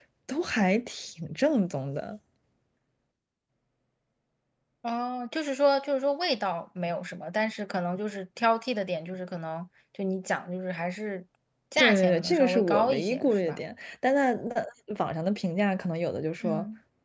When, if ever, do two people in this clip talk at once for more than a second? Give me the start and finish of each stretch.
11.8-13.6

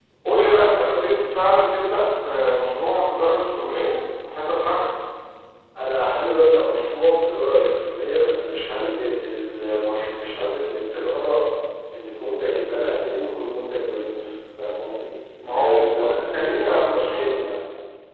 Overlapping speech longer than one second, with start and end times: 15.4-17.6

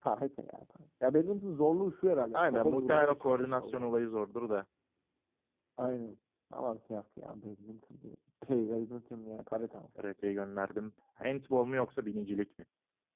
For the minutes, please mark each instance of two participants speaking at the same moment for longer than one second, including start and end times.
2.3-3.9

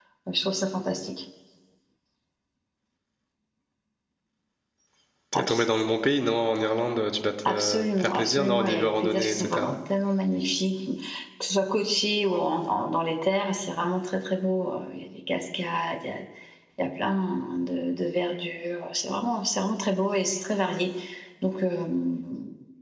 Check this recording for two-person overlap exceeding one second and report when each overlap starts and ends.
7.5-9.7

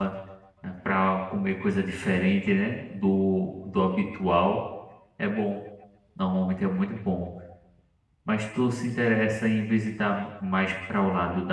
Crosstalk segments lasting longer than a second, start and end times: none

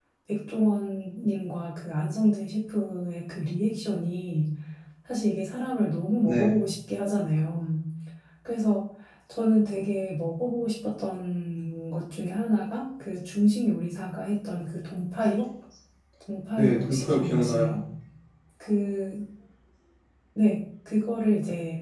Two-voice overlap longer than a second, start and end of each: 16.6-17.8

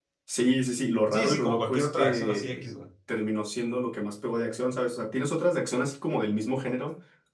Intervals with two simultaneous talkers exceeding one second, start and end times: 1.1-2.6

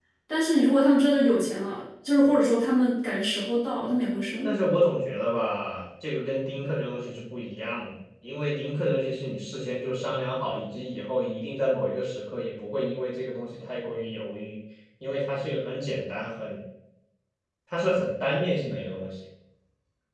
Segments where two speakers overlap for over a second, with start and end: none

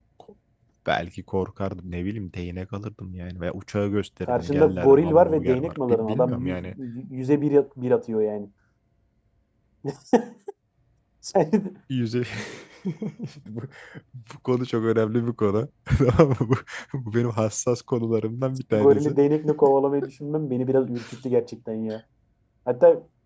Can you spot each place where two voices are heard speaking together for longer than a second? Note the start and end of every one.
4.3-6.6

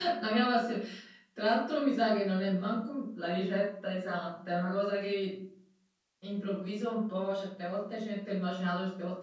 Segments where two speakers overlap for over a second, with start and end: none

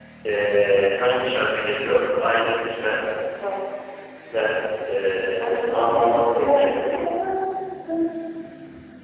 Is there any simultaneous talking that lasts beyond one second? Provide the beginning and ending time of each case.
5.4-7.0

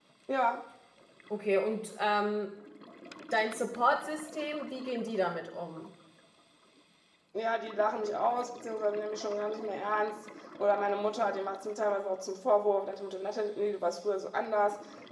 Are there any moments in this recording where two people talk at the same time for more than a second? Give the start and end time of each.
none

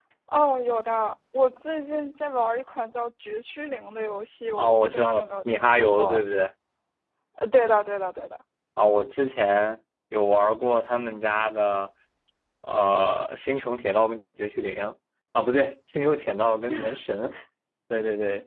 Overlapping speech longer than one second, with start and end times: 4.6-6.2

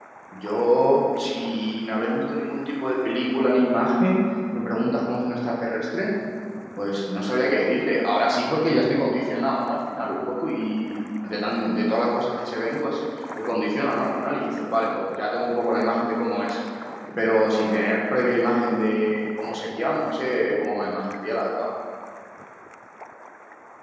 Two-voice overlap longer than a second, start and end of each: none

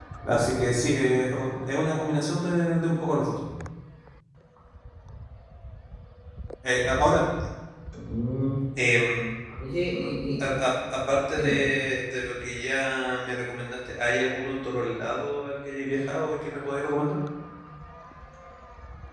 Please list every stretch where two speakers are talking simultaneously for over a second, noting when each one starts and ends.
none

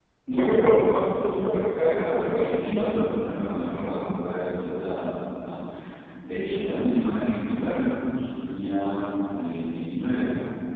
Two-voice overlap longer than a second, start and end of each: 1.2-2.9

